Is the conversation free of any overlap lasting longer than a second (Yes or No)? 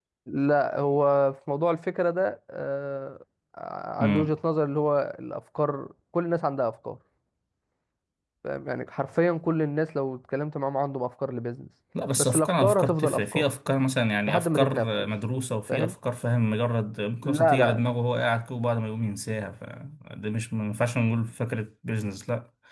No